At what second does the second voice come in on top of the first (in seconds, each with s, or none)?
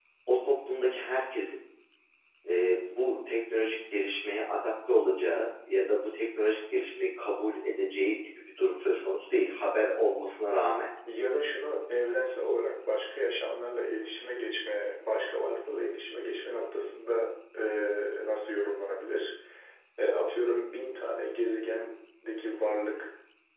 none